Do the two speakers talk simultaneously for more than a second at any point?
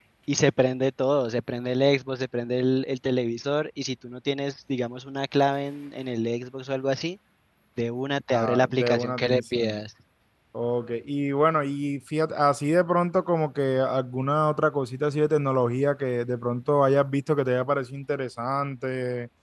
Yes, from 8.3 s

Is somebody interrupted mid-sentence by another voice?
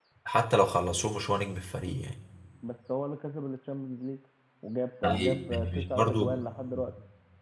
Yes, from 5.0 s

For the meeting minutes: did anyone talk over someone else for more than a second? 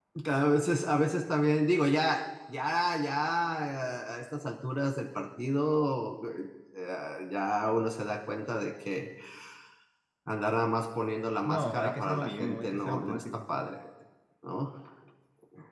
Yes, from 11.4 s

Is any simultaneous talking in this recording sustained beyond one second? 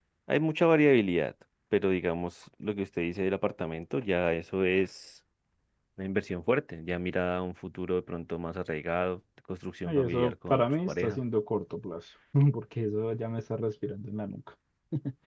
Yes, from 9.8 s

